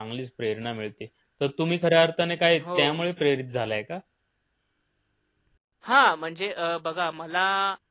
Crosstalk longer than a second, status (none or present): none